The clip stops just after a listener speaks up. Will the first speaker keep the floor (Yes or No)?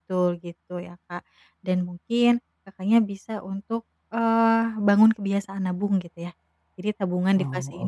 Yes